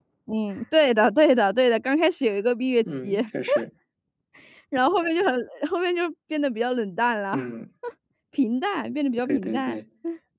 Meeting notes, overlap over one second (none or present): none